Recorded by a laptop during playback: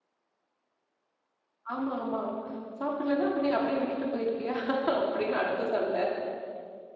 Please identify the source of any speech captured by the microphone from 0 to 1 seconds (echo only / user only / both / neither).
neither